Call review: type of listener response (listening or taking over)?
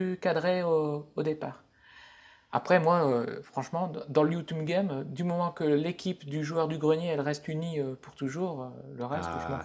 taking over